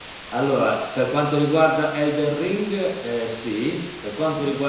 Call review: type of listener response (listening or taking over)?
listening